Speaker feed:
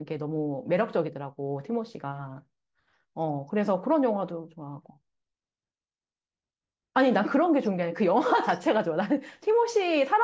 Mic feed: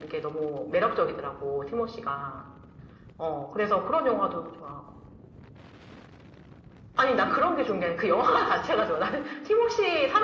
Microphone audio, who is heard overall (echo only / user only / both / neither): echo only